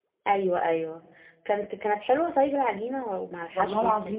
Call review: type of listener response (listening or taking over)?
taking over